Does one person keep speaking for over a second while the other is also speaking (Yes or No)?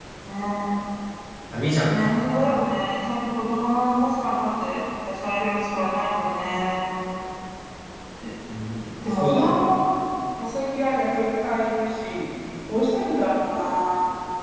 No